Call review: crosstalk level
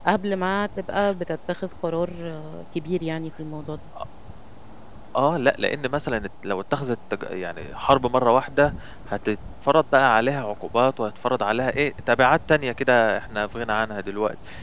none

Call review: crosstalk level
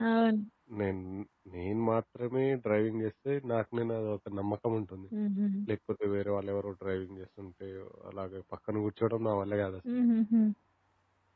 none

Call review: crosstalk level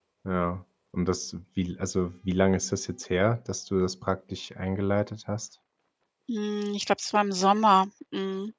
none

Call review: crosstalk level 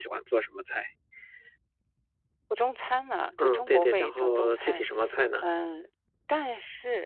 present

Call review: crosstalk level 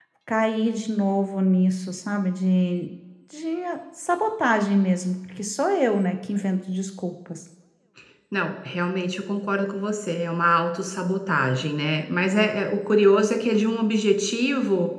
none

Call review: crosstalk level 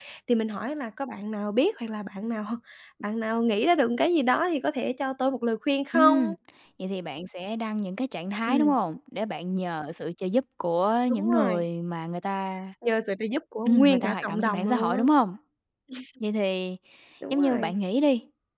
present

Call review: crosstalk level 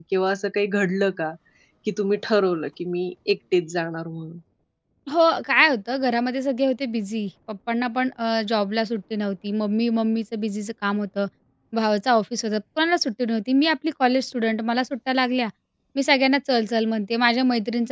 none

